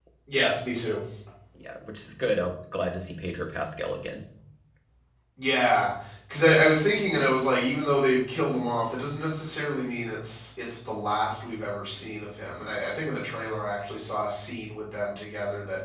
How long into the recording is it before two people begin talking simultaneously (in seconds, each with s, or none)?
none